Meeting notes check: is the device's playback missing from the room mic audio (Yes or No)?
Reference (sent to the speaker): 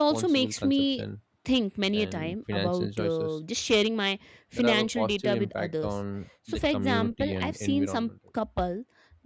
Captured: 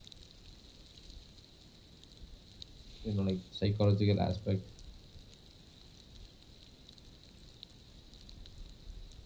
Yes